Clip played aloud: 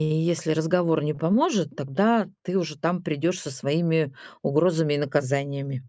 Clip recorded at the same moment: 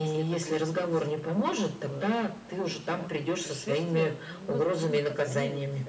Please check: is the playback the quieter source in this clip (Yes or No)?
No